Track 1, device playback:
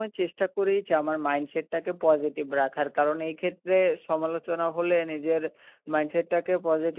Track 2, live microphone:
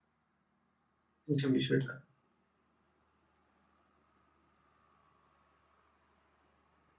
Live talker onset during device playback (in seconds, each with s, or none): 1.2 s